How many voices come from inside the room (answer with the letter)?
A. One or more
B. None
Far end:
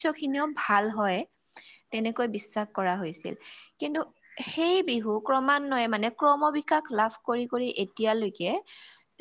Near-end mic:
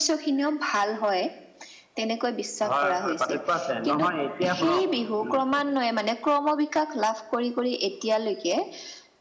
A